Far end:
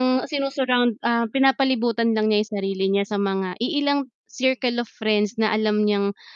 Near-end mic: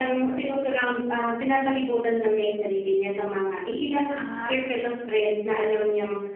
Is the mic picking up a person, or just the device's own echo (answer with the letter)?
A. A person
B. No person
A